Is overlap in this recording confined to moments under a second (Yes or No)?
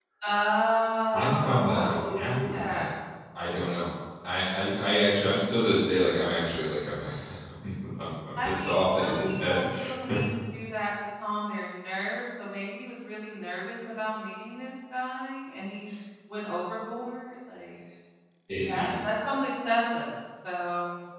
No